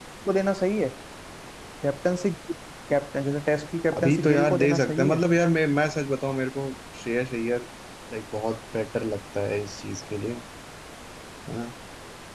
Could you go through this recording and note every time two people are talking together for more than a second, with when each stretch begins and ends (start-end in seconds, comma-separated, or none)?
4.0-5.2